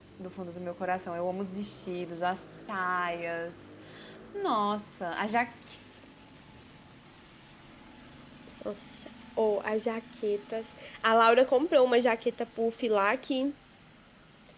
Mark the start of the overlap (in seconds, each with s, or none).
none